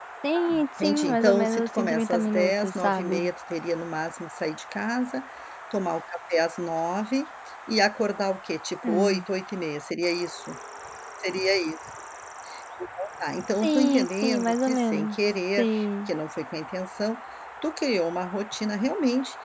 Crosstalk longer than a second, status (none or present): present